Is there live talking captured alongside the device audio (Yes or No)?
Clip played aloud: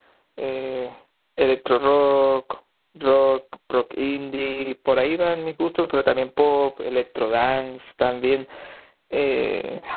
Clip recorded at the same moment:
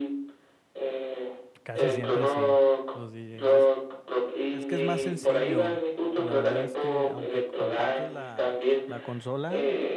Yes